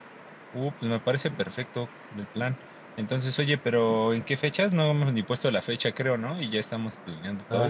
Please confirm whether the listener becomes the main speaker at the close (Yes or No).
Yes